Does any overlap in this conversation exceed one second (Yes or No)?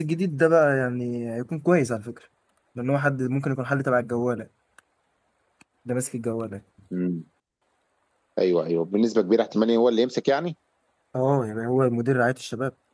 No